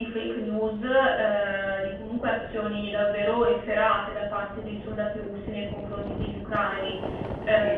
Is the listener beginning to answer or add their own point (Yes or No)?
Yes